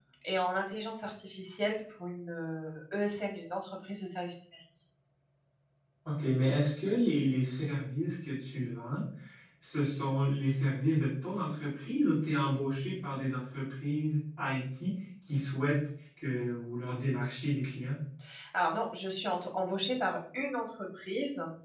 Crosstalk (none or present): none